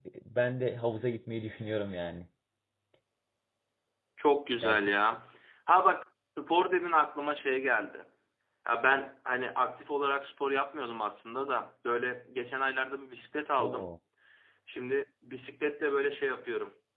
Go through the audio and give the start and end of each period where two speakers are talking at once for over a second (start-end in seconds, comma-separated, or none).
none